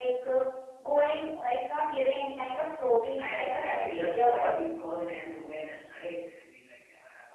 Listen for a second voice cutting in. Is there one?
Yes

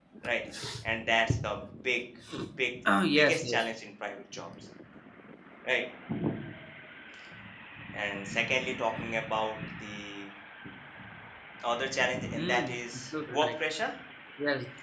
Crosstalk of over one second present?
Yes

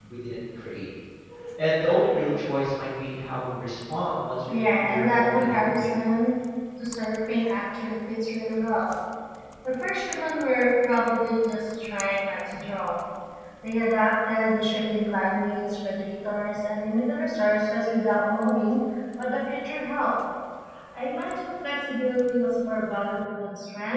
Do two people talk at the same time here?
Yes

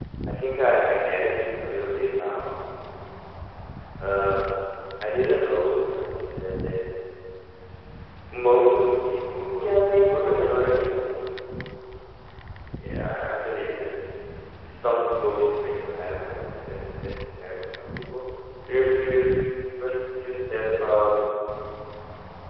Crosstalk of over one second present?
Yes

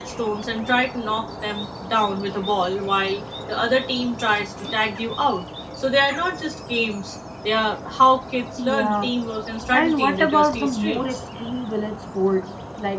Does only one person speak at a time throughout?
No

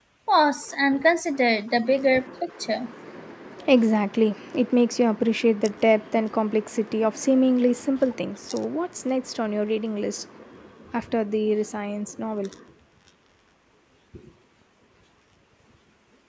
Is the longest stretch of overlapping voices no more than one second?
Yes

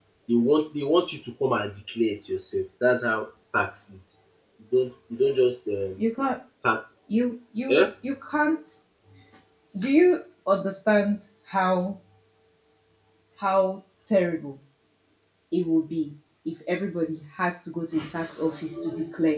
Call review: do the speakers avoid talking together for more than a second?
Yes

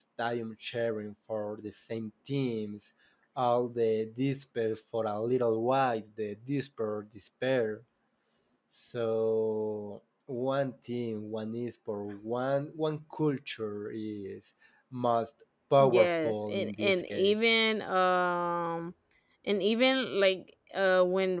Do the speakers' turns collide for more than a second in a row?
Yes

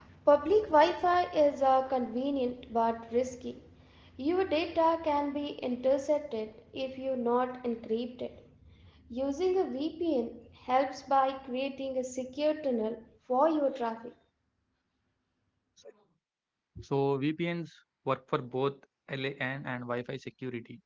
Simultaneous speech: No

